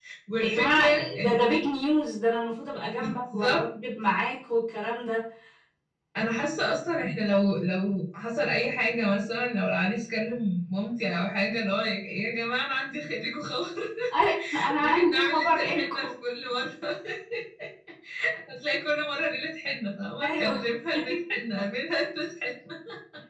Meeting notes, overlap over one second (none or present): present